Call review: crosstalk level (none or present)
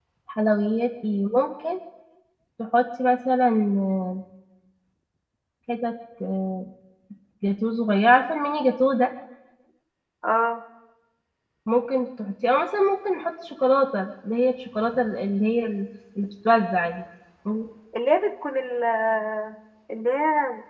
none